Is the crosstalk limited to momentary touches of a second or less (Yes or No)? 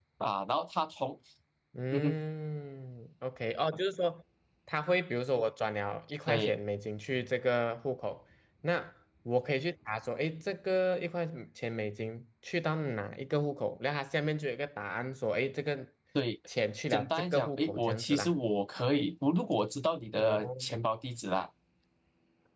No